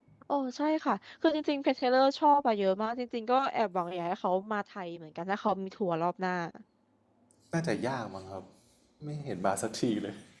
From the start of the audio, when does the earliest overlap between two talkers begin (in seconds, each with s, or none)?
none